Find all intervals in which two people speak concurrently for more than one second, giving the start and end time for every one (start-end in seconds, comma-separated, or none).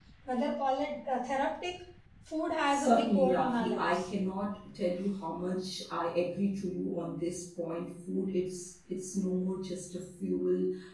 2.7-4.0